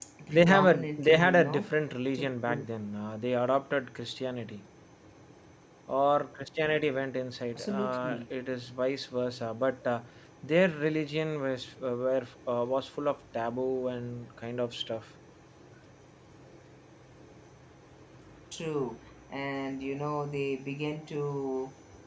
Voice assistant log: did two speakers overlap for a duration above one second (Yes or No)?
Yes